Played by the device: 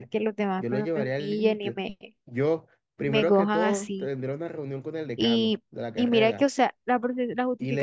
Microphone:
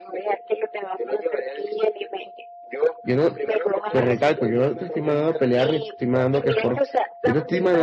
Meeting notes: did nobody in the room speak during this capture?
No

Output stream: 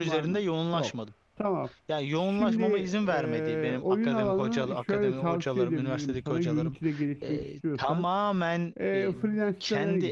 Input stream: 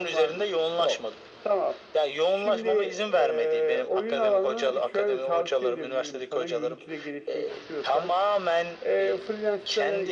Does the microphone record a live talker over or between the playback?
No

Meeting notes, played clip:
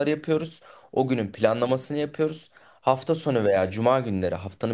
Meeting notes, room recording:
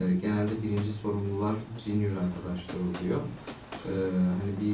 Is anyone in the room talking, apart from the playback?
Yes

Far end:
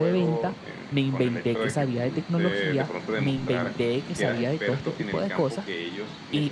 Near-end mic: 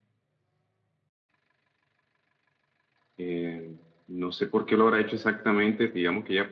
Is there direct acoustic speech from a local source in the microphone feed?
Yes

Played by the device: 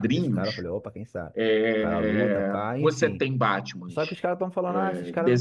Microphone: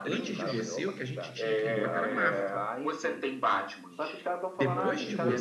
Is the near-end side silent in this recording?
No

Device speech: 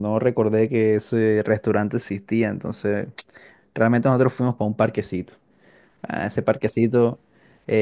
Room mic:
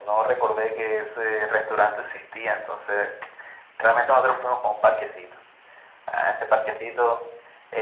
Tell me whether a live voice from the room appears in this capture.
No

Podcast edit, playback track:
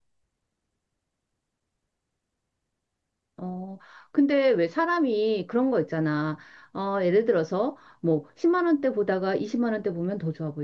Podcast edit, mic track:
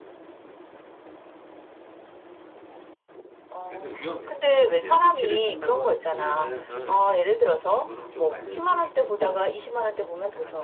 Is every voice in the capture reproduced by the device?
No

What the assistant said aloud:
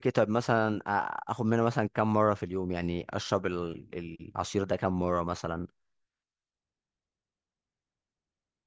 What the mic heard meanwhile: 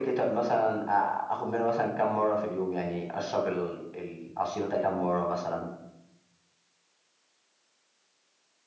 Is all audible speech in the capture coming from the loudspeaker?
Yes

